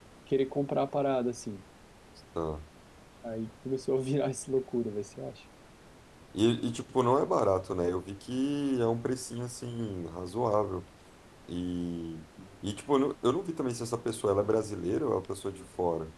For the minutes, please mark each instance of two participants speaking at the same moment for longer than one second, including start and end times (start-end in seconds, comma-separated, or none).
none